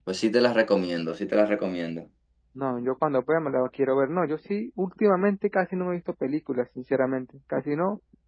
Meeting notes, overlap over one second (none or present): none